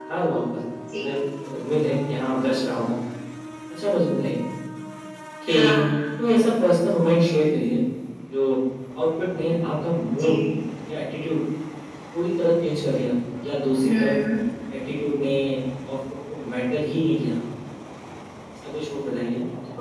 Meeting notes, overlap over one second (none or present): none